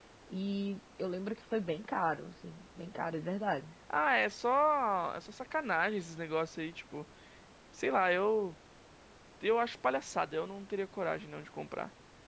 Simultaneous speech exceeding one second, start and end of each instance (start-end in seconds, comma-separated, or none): none